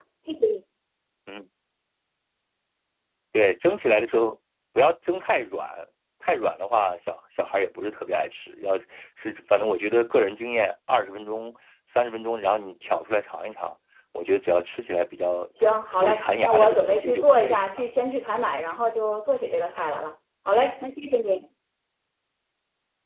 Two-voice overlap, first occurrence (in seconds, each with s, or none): 16.0 s